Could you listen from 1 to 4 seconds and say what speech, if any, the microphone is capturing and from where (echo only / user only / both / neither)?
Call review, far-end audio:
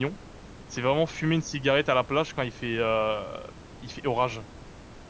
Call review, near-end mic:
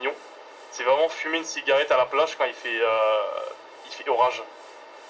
echo only